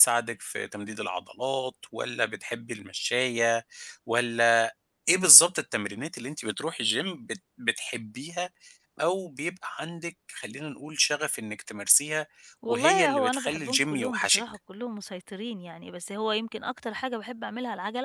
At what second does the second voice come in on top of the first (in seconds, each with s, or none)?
12.7 s